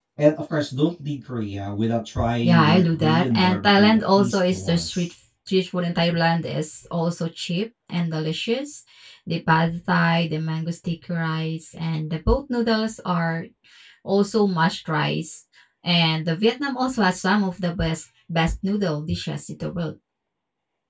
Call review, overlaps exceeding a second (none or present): present